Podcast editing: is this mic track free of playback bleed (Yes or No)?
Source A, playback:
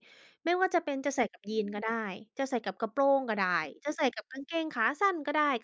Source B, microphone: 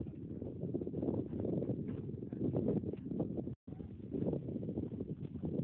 Yes